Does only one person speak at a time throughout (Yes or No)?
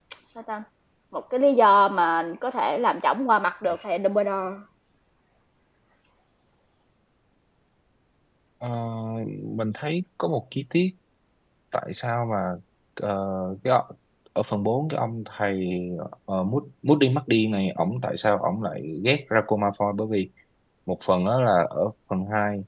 Yes